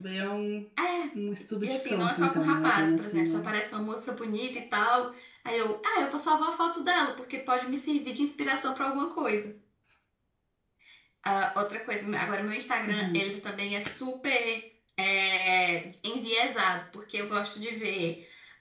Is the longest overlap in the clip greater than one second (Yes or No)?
Yes